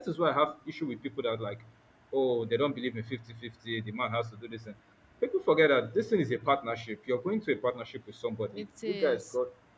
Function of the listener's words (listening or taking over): listening